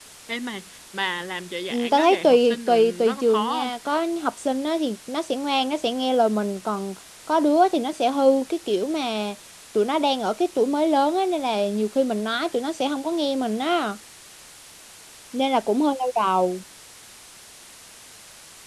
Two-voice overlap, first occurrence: 2 s

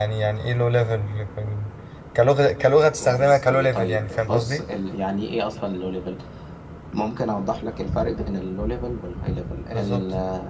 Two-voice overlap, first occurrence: 3 s

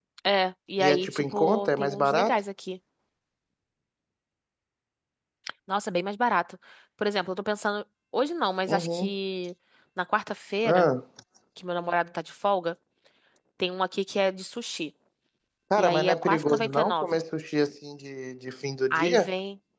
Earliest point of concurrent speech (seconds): 1 s

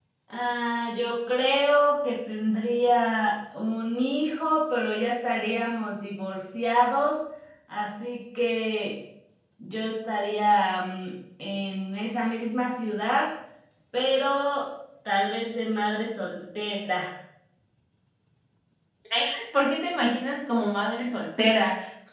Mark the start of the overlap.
none

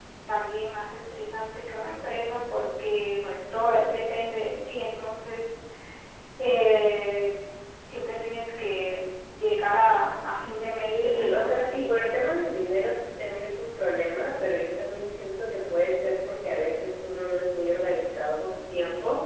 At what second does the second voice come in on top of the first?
11 s

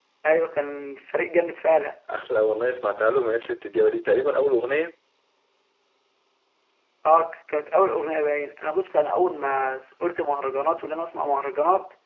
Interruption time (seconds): none

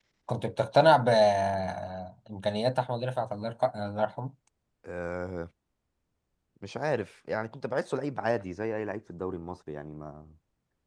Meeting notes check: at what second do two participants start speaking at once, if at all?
none

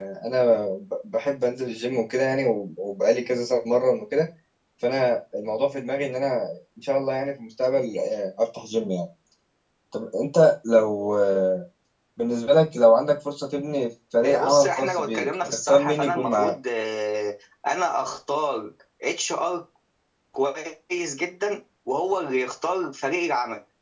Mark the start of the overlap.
14 s

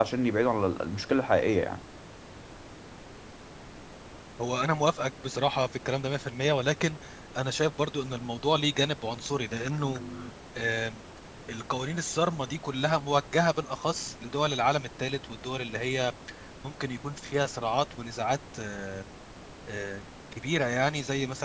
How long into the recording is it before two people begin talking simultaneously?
none

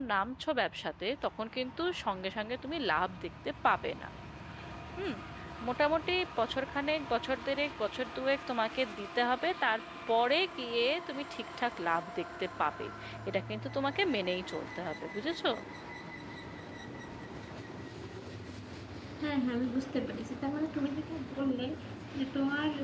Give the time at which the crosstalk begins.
none

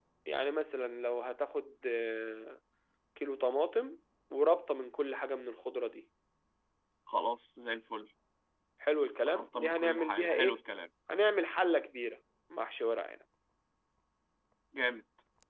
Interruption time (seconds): 9 s

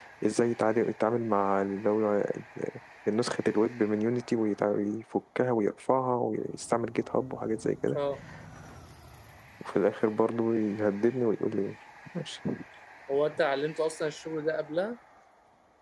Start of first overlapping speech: none

